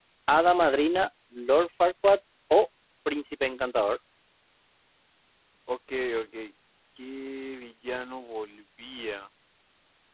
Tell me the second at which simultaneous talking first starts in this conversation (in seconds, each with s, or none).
none